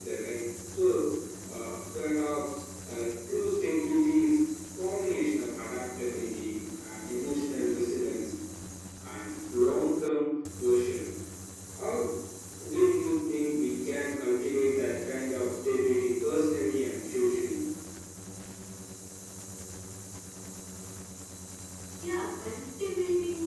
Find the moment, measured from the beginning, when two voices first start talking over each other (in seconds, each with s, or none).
none